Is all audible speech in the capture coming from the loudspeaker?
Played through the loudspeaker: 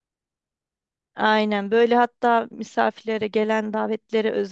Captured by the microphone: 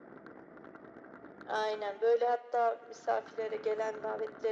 Yes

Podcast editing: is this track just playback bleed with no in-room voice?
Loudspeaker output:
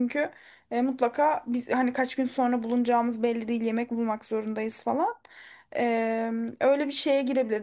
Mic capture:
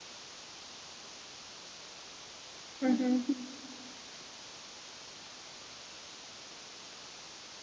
No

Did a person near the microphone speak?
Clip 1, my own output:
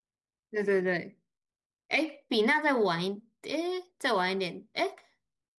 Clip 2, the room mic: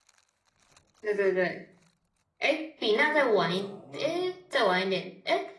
Yes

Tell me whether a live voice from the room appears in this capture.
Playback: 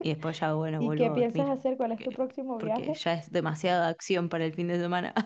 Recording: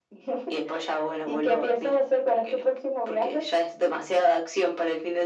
No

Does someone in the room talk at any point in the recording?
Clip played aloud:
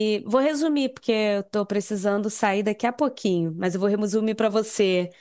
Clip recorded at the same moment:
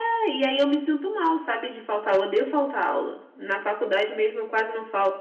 Yes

